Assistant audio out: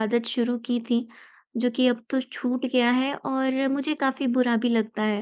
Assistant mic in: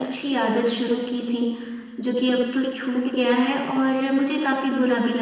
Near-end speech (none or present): none